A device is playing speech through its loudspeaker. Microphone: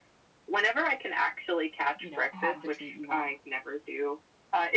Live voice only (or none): um, you know, have the treat you want.